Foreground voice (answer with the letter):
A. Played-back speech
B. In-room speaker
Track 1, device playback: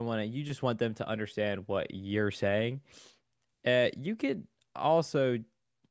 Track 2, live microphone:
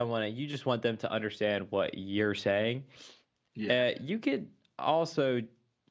A